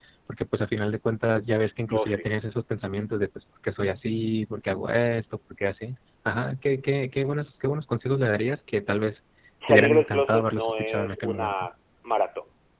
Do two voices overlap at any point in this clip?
Yes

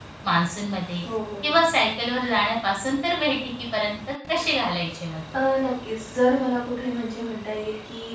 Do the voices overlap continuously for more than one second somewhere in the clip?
No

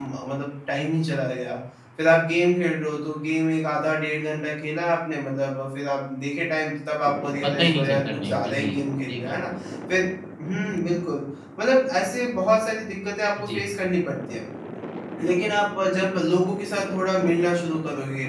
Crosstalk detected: Yes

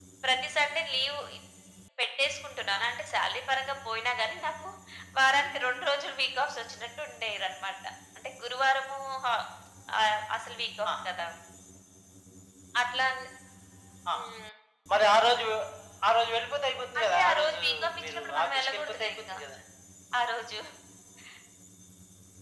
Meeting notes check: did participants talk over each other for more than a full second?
Yes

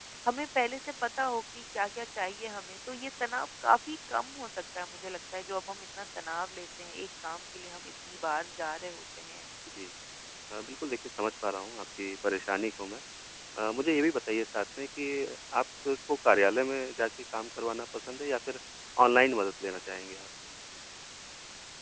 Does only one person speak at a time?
Yes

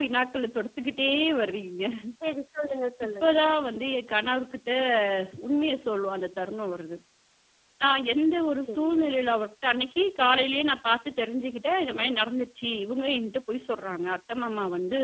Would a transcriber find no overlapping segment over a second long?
Yes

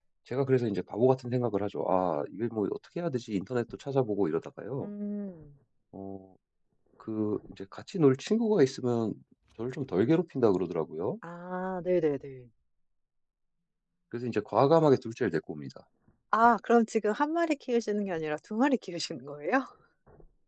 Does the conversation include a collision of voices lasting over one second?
No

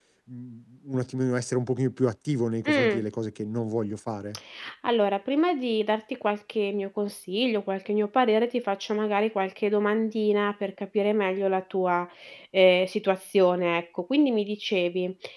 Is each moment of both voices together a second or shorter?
Yes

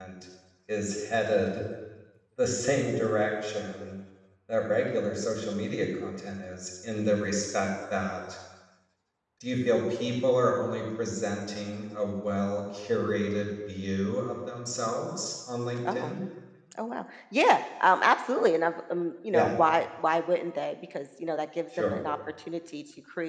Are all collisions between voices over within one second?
Yes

